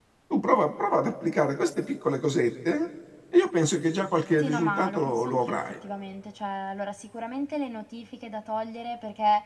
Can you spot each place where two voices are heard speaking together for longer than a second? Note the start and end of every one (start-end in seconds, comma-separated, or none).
4.4-5.6